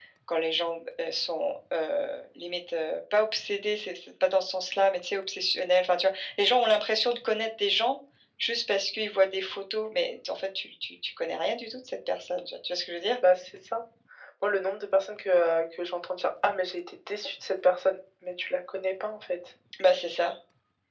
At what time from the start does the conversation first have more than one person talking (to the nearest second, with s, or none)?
none